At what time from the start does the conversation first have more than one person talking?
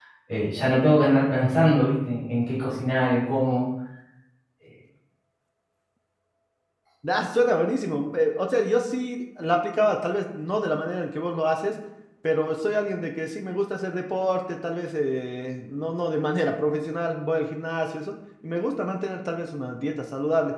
none

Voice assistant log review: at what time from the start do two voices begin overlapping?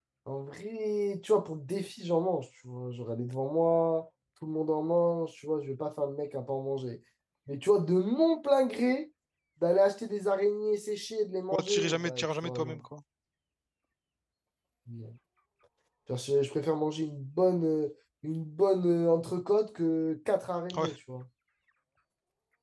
11.5 s

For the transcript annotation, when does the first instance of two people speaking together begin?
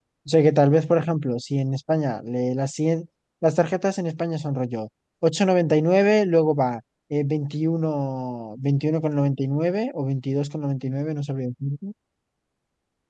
none

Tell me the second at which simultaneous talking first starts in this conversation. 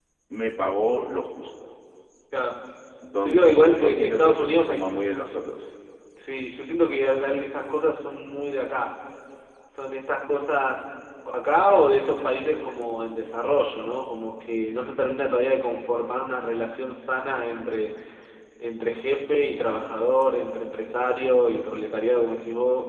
3.2 s

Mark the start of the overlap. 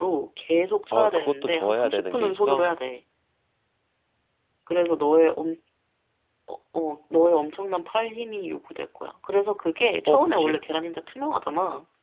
0.9 s

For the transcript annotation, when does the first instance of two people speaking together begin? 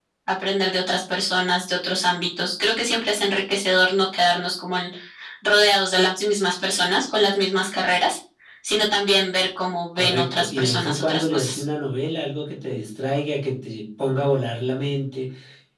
10.0 s

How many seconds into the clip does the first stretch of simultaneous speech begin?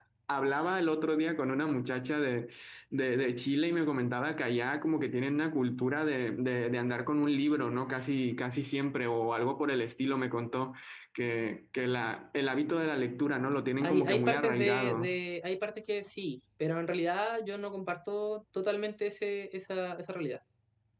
13.8 s

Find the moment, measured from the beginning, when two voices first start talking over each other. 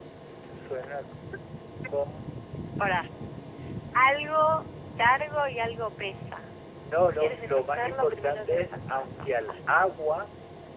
7.2 s

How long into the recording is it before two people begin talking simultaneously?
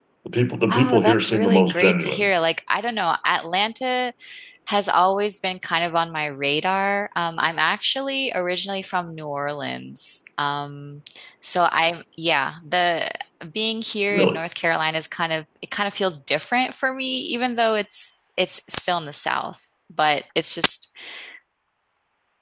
0.7 s

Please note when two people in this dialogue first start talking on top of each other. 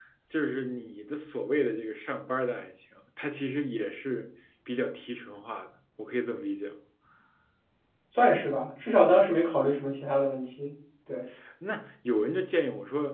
none

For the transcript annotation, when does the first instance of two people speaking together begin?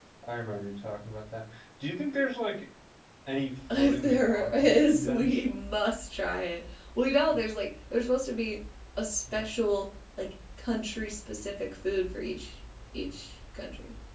3.7 s

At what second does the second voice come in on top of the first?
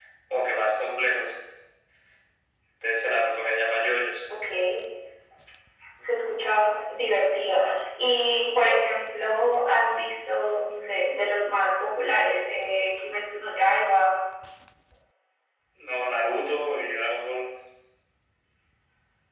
none

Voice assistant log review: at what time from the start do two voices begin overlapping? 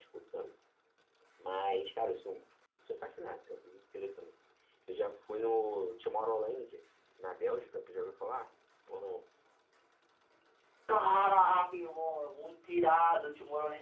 none

